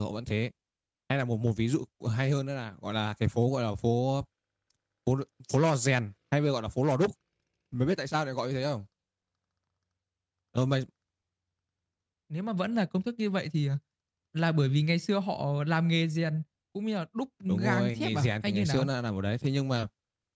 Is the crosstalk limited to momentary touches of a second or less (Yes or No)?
No